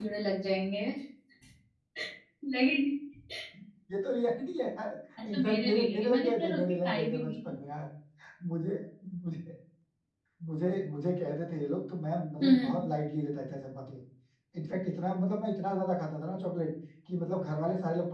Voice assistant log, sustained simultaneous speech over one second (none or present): present